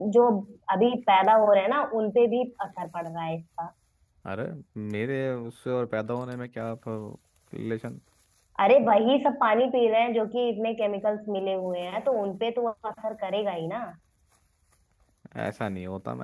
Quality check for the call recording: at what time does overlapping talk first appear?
none

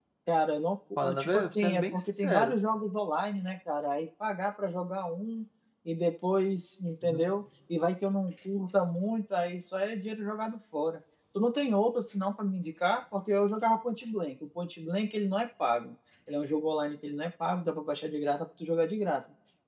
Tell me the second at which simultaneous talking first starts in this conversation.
1.0 s

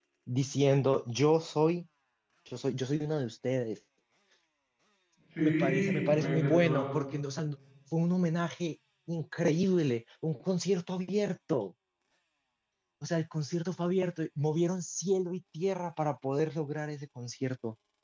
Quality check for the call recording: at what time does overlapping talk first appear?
5.4 s

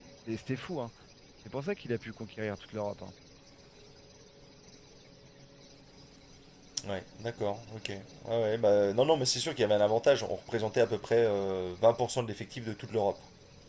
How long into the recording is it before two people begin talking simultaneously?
none

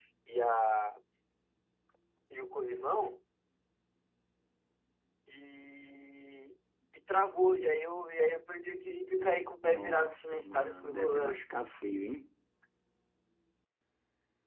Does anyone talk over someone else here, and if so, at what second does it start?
9.6 s

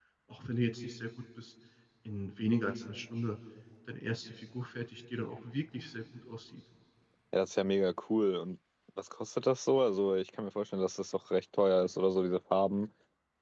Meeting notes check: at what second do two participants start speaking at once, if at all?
none

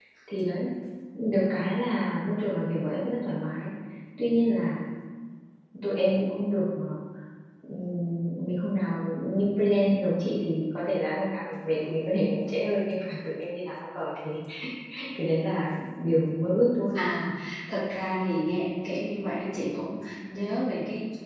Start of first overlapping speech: none

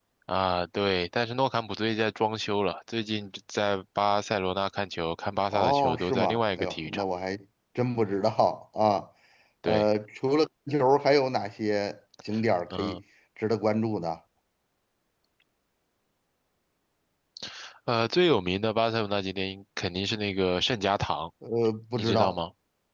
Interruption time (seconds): 5.5 s

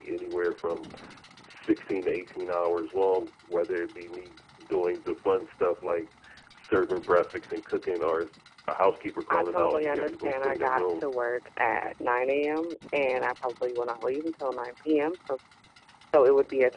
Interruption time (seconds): 9.3 s

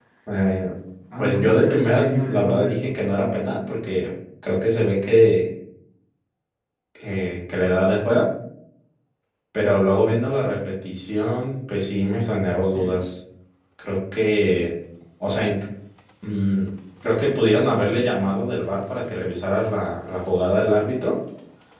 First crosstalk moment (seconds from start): 1.2 s

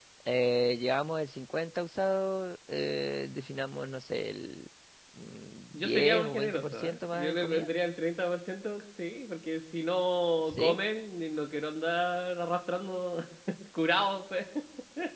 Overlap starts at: 5.7 s

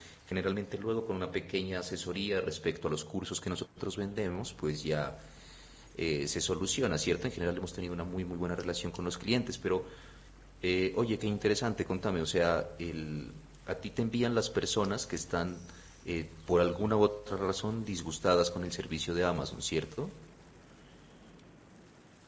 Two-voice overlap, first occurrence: none

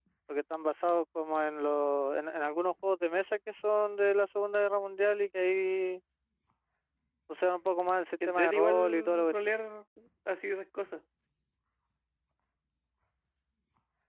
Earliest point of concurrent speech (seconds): 8.2 s

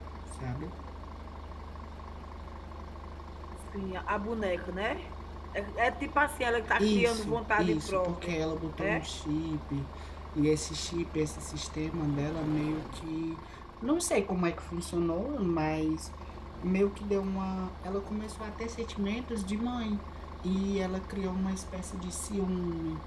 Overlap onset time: 6.8 s

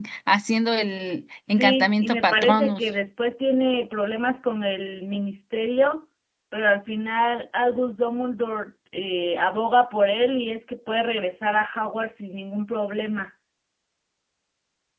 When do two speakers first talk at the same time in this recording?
1.6 s

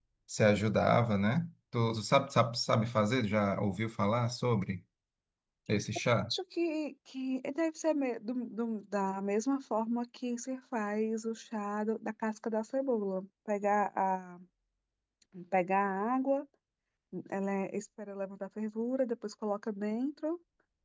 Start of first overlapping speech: none

